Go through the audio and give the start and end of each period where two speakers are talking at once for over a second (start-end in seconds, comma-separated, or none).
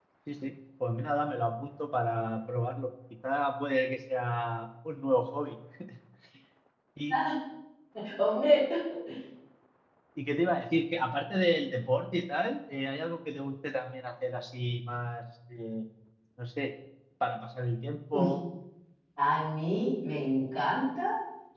none